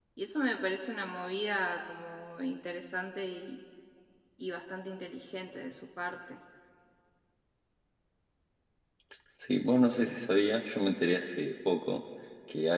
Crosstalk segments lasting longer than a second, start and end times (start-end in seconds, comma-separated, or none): none